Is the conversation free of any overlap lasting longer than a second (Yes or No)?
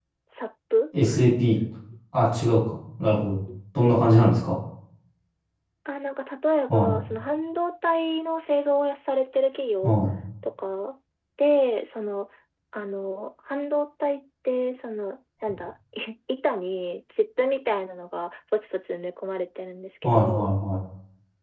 Yes